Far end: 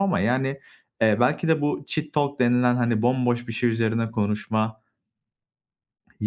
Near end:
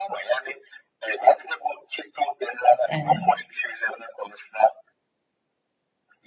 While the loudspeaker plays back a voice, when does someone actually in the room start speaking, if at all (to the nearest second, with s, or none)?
3 s